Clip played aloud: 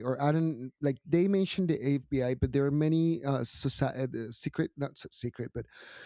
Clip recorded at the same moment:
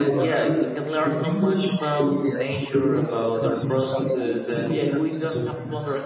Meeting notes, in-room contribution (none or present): present